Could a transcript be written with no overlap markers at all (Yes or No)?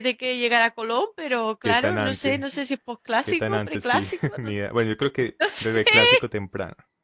No